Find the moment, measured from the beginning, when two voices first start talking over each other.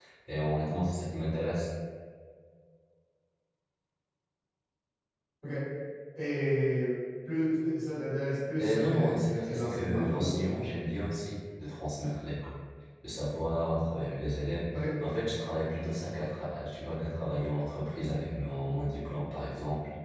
9 s

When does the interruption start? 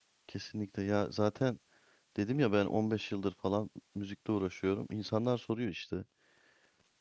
none

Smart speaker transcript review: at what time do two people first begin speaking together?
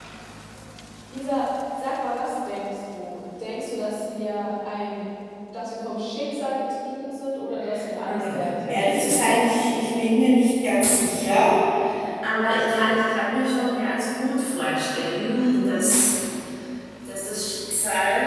8 s

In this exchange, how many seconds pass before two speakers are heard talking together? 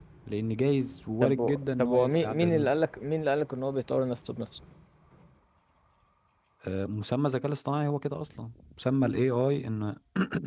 1 s

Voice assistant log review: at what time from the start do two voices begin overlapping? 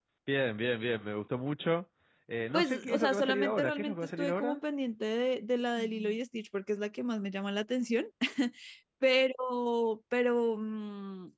3 s

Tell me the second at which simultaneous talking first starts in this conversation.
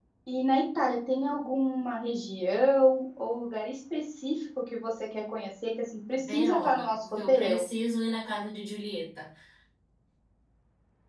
6 s

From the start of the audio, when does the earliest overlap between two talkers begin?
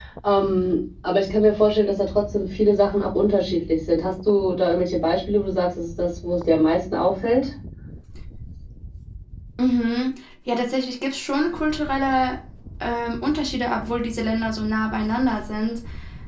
none

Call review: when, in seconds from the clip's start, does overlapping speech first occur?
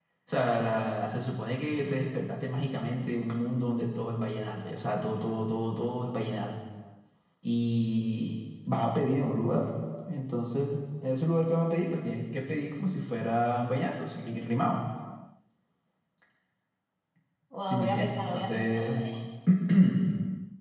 18 s

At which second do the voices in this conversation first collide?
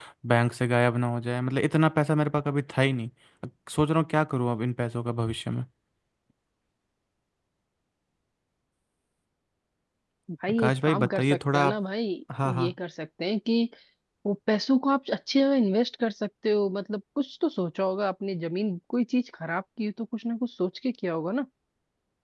11 s

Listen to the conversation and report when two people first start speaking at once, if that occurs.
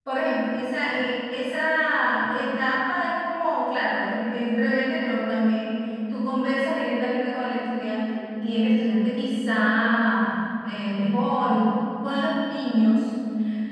none

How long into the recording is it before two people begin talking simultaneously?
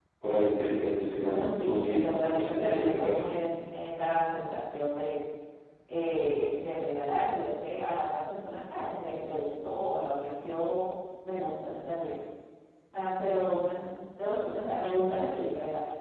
1 s

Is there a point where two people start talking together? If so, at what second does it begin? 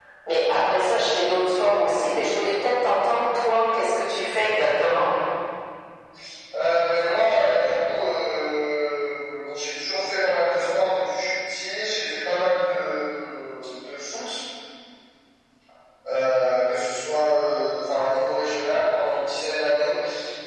none

